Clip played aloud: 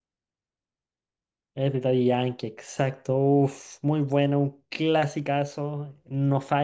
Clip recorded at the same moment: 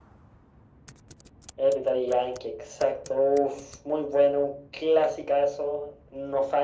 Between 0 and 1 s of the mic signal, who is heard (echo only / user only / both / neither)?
neither